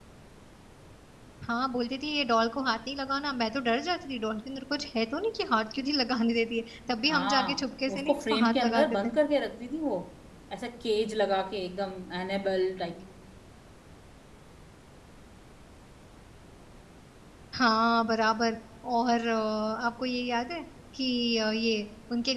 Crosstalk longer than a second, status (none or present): present